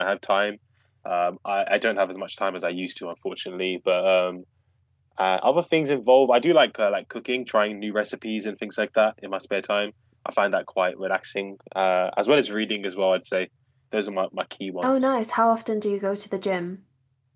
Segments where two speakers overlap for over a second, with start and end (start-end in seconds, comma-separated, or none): none